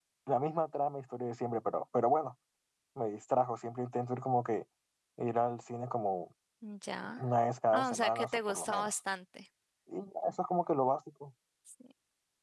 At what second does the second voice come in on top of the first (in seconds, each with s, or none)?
7.7 s